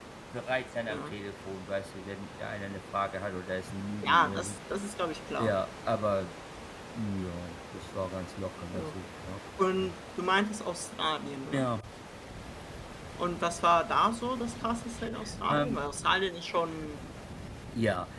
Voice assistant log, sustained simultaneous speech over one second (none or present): none